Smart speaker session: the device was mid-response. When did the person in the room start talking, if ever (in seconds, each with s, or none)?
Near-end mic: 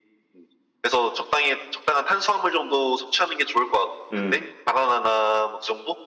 4.1 s